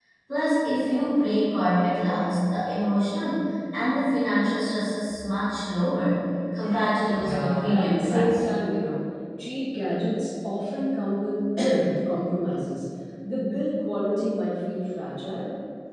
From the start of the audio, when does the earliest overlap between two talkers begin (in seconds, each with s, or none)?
7.1 s